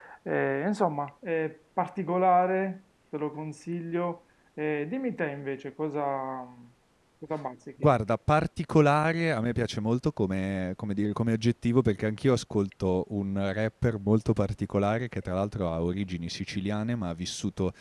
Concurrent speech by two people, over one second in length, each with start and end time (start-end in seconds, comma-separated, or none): none